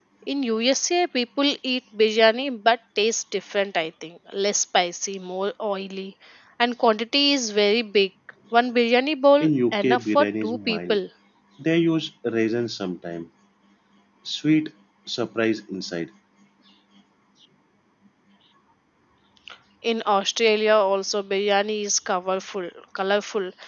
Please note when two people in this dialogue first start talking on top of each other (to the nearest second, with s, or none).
9 s